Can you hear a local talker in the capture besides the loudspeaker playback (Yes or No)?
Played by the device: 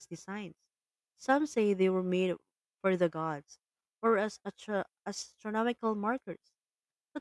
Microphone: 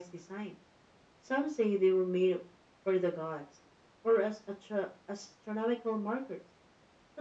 No